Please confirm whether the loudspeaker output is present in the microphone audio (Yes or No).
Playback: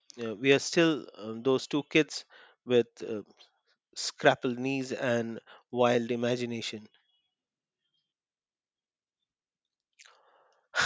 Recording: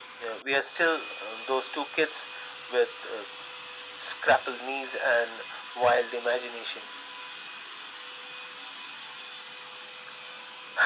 Yes